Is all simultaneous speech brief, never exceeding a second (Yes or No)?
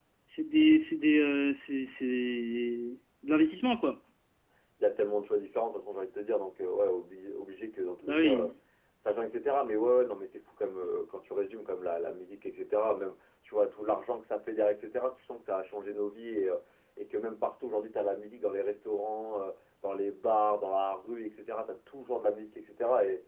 Yes